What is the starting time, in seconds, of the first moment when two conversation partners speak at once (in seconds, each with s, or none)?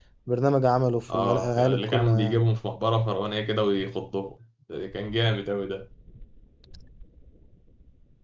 1.1 s